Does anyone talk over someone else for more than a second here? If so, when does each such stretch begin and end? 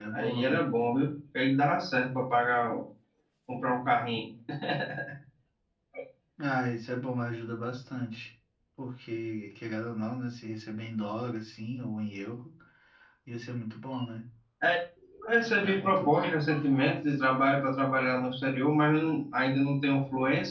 none

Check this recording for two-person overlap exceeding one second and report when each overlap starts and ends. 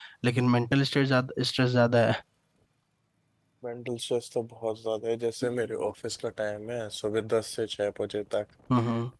none

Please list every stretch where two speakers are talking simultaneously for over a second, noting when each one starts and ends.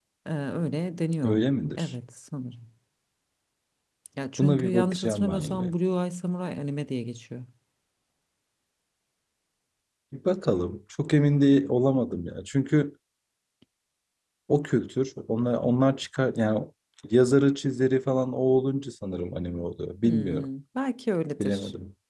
4.4-5.7

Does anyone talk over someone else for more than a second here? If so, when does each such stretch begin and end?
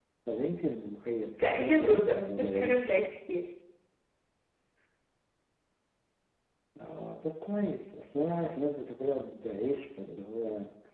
1.4-2.9

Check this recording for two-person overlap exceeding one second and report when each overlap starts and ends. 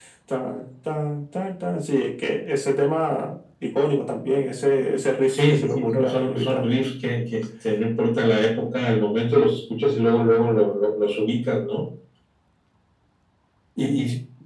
5.3-6.7

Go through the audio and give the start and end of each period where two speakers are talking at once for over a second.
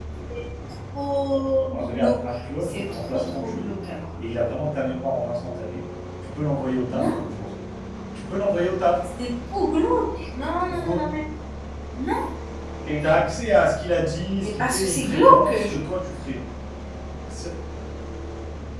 1.7-3.7, 14.4-15.8

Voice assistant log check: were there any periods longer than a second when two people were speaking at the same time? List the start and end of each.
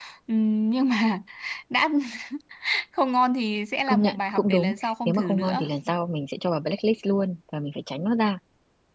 3.9-5.6

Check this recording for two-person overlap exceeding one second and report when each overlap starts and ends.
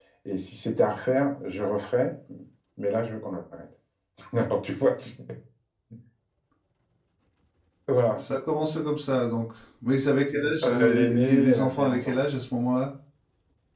10.6-12.1

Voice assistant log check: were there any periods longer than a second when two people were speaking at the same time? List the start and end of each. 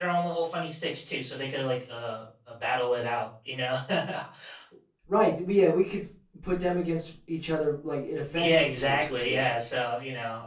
8.4-9.6

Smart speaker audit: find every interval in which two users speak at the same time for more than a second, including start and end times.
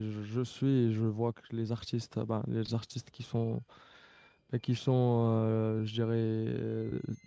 none

